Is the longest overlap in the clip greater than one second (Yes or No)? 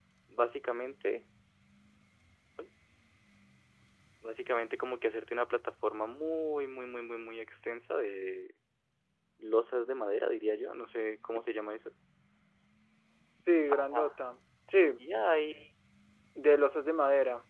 No